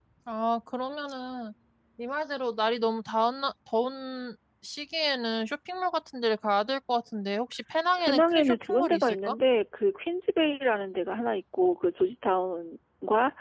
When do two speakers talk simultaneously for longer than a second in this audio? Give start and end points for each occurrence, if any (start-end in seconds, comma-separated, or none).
8.0-9.3